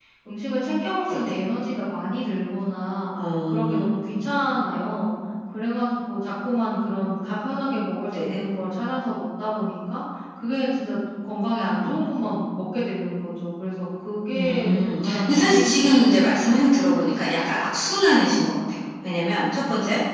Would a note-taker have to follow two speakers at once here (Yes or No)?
Yes